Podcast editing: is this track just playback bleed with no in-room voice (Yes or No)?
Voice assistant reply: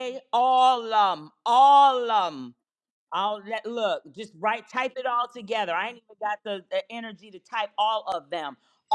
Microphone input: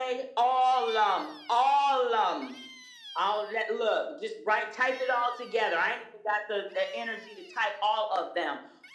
Yes